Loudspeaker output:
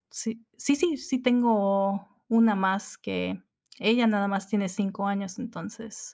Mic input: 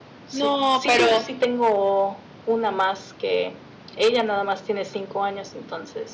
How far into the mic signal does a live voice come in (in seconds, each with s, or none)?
0.3 s